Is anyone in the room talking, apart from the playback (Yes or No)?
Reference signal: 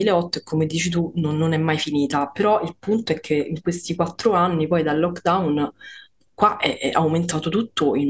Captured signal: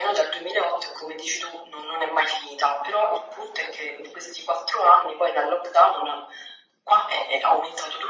No